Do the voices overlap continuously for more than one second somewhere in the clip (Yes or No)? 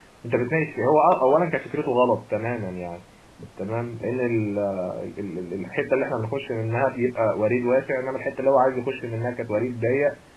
No